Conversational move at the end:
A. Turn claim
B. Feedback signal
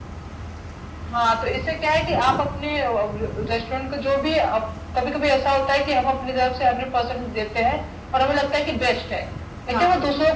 B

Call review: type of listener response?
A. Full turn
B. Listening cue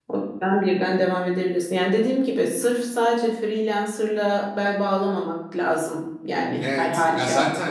A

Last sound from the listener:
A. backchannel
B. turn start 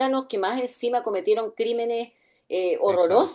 B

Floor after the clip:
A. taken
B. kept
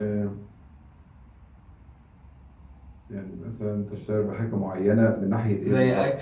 A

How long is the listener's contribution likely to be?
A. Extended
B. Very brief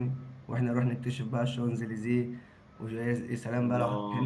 A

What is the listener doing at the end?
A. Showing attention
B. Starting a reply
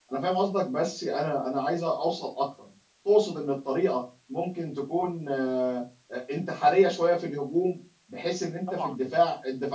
A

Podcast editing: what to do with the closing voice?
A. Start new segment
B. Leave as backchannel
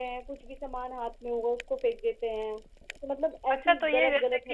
A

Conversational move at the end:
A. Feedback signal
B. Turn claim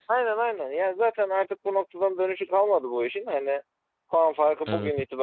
A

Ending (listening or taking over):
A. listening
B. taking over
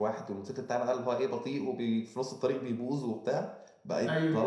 A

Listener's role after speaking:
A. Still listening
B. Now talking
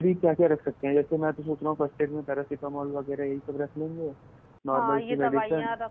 B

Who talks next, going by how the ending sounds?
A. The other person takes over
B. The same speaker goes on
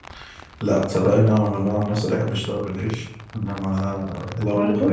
B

